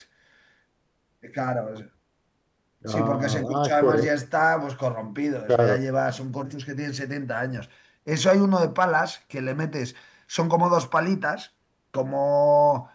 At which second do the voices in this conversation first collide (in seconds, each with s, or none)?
2.9 s